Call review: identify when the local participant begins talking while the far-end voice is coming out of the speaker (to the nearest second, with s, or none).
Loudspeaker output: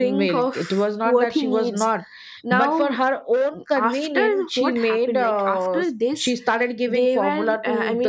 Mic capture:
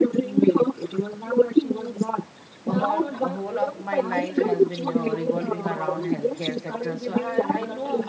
3 s